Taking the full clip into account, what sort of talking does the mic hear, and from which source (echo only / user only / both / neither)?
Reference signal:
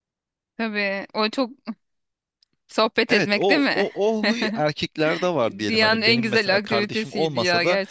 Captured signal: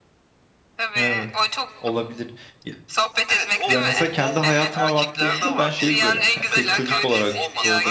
both